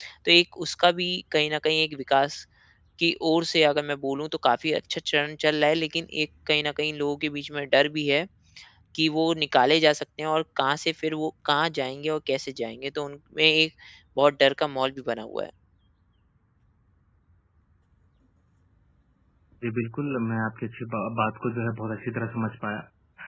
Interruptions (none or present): none